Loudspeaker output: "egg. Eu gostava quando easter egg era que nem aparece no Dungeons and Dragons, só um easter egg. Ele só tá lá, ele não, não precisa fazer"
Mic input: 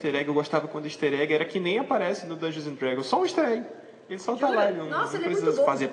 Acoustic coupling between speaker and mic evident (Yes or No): Yes